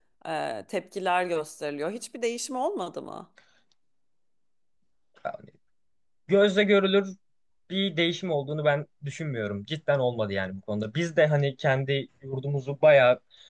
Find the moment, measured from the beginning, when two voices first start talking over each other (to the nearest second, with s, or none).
none